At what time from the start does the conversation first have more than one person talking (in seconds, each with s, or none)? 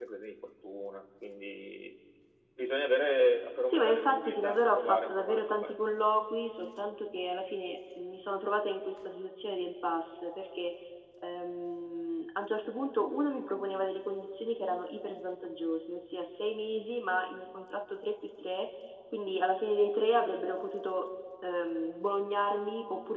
3.6 s